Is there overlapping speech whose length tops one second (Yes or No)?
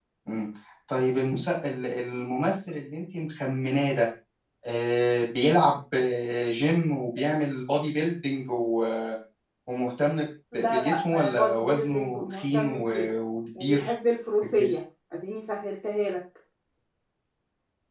Yes